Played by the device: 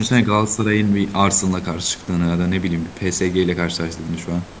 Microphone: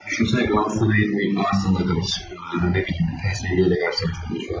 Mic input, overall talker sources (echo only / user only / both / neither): echo only